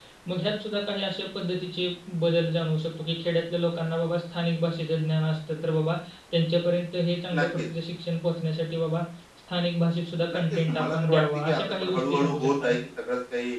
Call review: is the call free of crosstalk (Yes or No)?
No